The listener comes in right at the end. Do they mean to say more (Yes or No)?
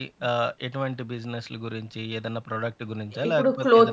Yes